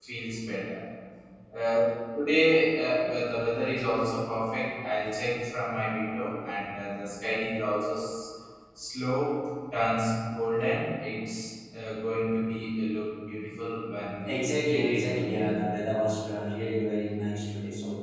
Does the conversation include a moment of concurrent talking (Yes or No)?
Yes